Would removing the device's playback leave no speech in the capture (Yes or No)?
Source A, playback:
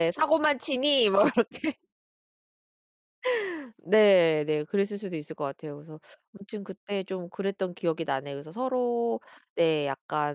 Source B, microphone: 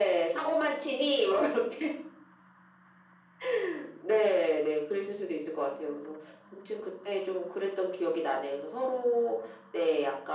Yes